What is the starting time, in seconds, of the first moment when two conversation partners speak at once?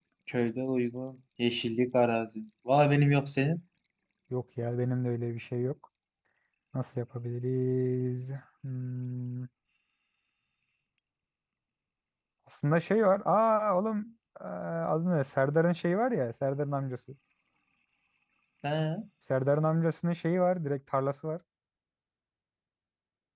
none

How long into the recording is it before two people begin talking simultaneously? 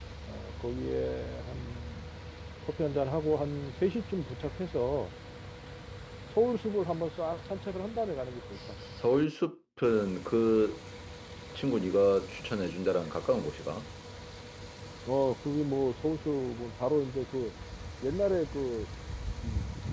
none

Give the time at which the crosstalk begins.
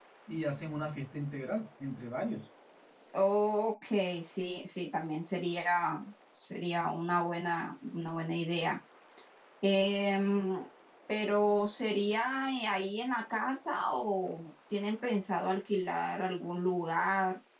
none

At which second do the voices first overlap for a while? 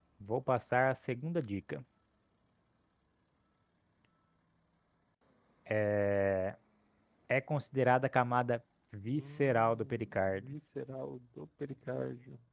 9.1 s

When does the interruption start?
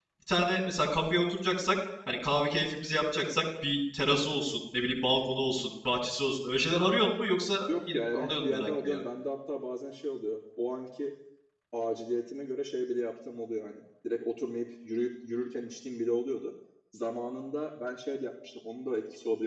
7.7 s

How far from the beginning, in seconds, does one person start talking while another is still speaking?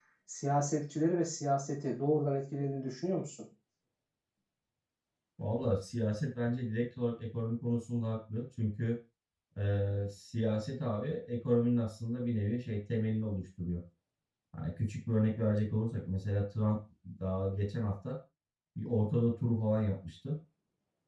none

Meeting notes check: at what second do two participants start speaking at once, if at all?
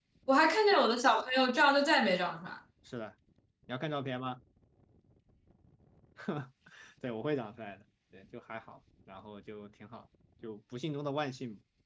none

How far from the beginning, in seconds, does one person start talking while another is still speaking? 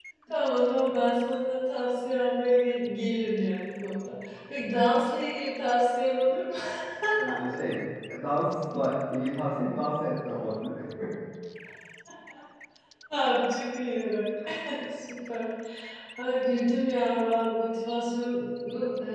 none

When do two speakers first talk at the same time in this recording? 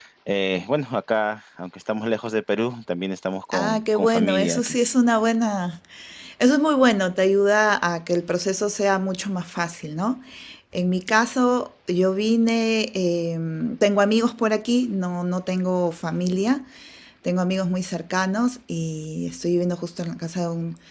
3.5 s

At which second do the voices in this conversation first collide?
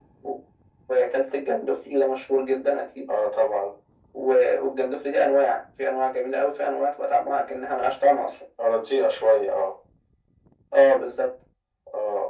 none

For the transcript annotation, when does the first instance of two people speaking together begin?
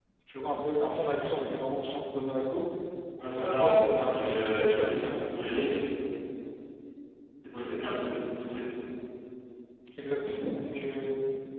3.3 s

